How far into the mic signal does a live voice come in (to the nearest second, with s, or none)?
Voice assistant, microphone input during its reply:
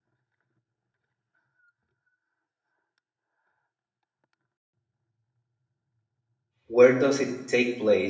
7 s